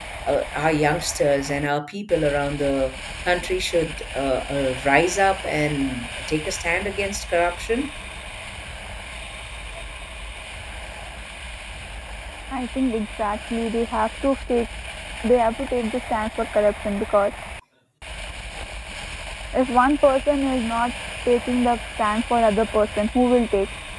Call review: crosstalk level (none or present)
none